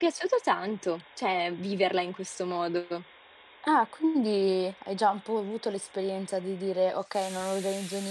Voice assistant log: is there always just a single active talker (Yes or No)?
Yes